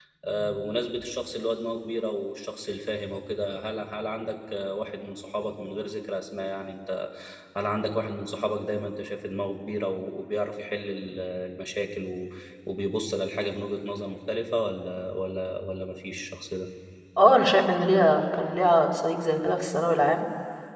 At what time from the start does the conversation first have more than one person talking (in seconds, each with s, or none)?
none